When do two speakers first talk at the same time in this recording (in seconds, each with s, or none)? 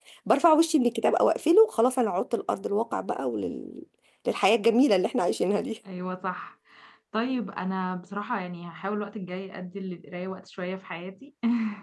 none